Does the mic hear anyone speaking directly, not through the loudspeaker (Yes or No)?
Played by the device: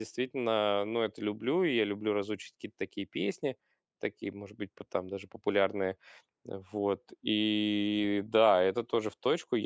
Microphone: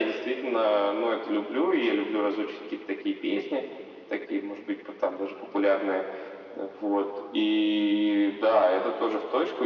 No